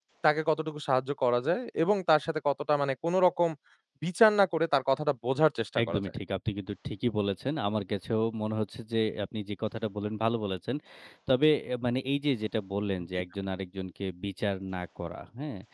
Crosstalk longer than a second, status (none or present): none